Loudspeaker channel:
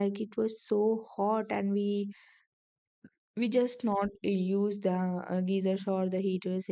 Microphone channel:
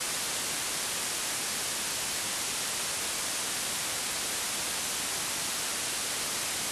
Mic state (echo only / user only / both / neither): neither